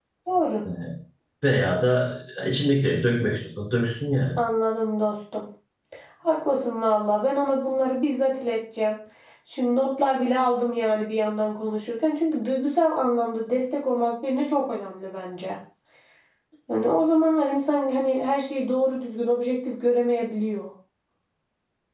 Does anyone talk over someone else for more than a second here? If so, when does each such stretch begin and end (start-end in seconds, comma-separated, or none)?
none